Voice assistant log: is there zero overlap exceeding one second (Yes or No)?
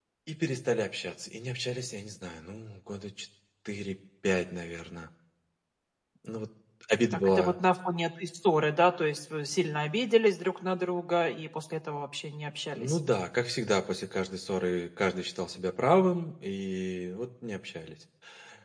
Yes